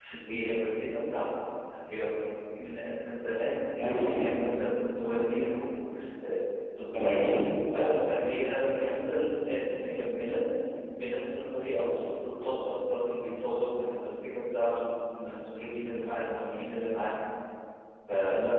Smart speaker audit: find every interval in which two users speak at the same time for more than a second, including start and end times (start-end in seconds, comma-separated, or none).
none